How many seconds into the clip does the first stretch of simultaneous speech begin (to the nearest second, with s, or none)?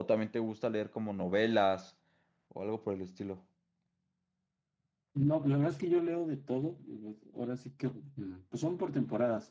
none